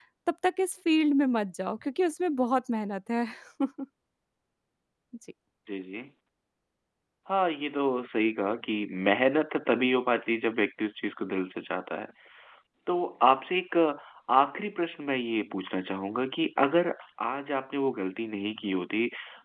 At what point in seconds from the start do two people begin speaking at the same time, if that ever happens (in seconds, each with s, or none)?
none